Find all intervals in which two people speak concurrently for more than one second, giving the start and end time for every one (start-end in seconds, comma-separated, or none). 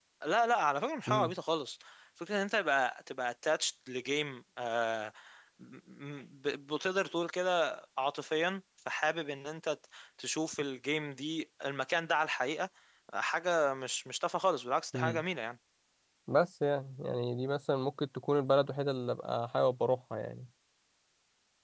none